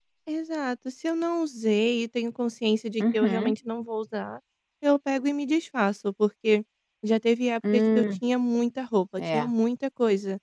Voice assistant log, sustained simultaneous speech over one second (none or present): none